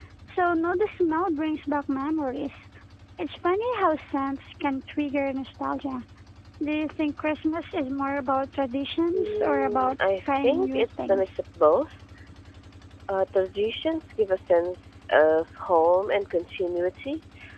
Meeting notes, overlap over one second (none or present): present